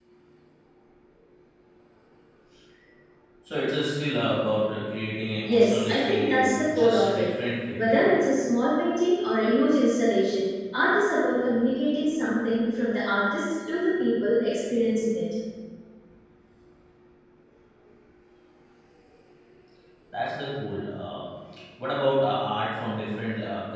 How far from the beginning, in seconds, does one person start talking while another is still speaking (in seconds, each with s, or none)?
5.4 s